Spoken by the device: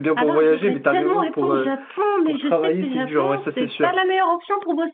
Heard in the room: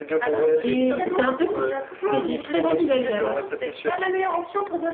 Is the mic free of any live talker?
No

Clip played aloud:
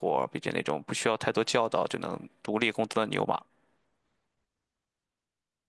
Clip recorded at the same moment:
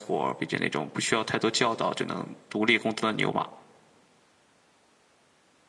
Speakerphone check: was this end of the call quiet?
Yes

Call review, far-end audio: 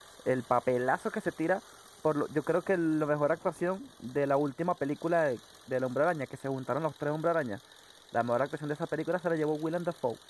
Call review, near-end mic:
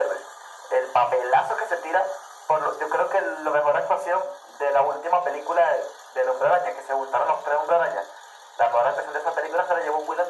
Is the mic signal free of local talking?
Yes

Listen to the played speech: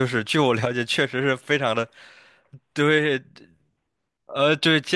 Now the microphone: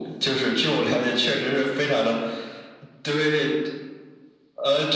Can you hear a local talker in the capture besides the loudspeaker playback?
No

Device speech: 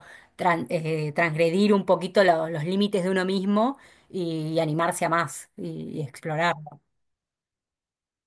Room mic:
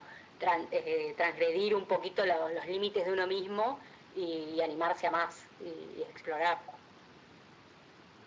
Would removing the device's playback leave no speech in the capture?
Yes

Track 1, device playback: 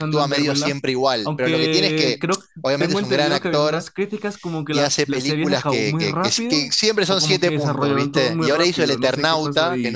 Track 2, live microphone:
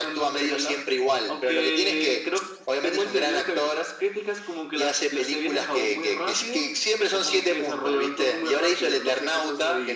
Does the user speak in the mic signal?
No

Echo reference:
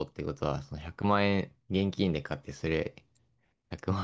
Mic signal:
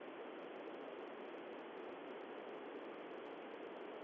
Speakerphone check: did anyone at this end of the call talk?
No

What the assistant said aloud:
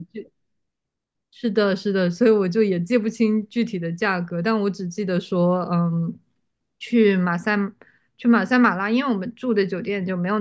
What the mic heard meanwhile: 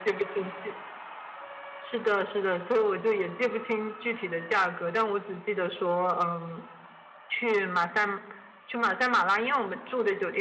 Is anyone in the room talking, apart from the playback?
No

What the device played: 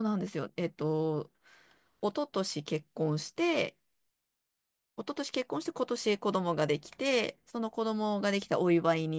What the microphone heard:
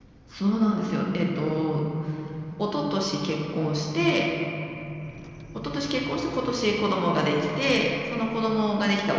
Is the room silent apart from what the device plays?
No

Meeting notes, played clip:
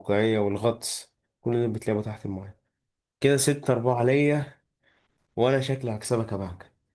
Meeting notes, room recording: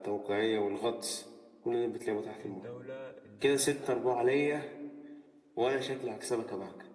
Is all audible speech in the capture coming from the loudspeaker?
No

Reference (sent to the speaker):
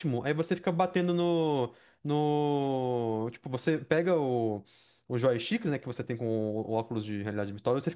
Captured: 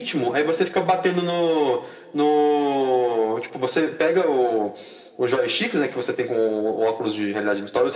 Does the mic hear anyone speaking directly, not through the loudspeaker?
No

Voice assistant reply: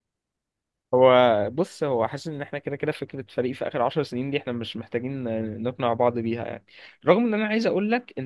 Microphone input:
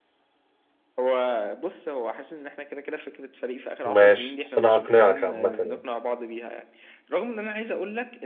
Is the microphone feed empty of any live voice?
No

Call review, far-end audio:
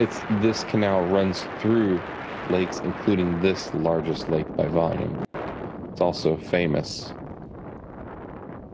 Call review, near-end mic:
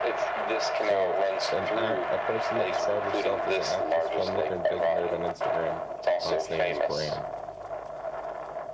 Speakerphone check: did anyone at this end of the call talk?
Yes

